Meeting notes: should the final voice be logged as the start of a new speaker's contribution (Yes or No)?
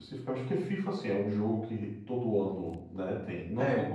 No